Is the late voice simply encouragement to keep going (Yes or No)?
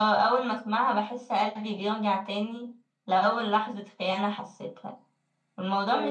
Yes